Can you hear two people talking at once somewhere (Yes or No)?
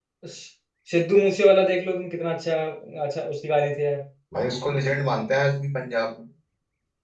No